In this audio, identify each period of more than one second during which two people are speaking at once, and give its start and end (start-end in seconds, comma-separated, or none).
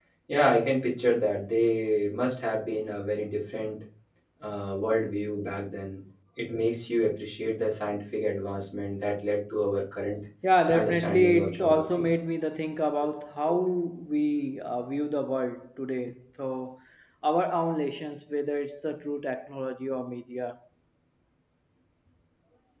10.7-12.1